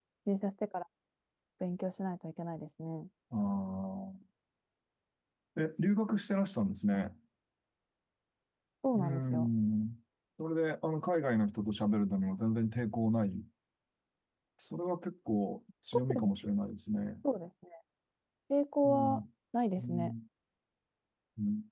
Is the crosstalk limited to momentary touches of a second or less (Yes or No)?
Yes